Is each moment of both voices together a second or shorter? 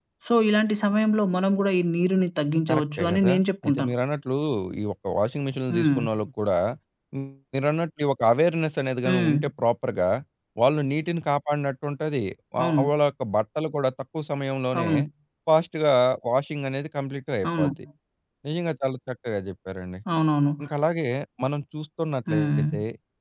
No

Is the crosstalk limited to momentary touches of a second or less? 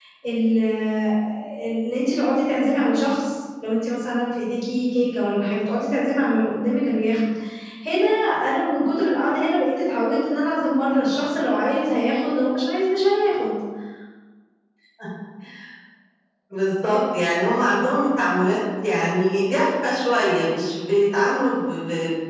Yes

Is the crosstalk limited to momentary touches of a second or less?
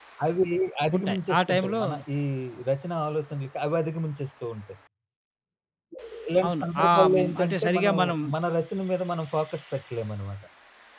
No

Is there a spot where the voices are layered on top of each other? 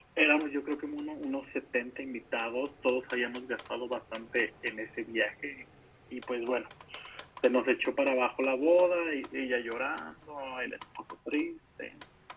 No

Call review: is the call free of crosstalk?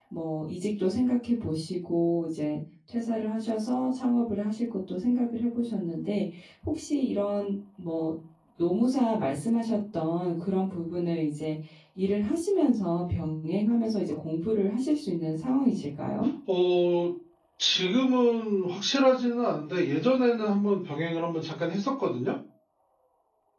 Yes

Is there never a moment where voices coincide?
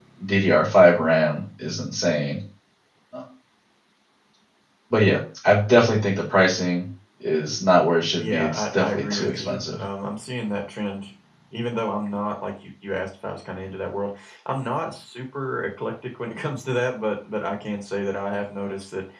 No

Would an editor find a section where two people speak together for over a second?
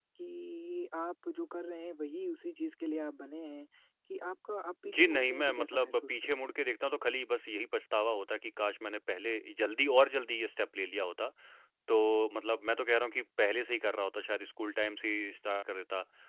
Yes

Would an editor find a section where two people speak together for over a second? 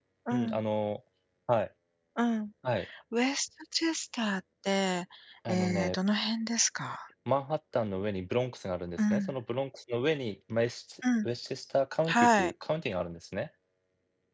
No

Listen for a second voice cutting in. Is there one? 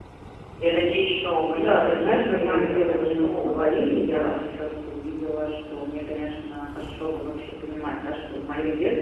Yes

